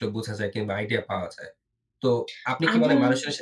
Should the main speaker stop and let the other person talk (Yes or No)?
No